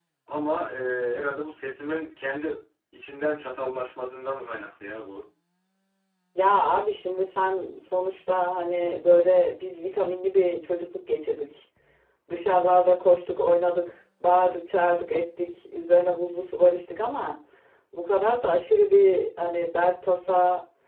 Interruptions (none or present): none